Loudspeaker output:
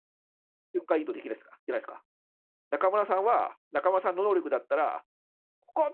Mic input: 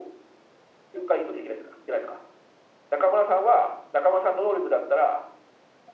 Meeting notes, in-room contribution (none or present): none